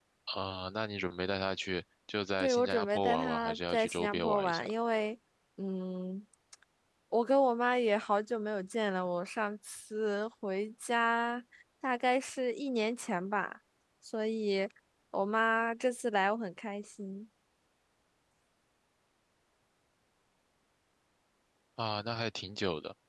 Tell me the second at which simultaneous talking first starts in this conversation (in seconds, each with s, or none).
2.4 s